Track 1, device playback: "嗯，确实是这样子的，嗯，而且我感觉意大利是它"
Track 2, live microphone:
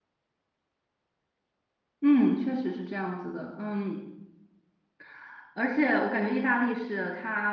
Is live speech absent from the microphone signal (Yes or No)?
Yes